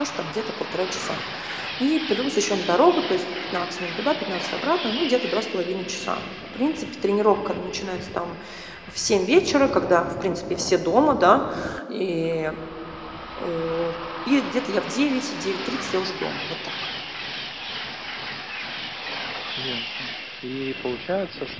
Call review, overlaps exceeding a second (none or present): none